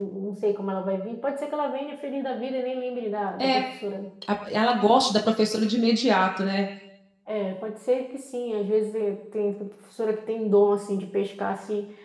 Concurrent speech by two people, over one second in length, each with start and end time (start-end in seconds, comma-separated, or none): none